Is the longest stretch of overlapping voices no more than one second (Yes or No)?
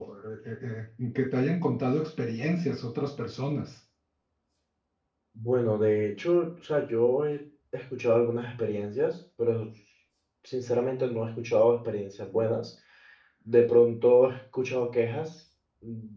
Yes